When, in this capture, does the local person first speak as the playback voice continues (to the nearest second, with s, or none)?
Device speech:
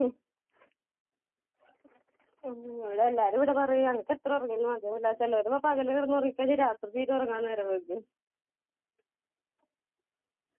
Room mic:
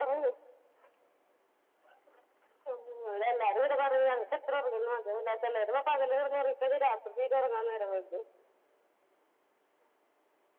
none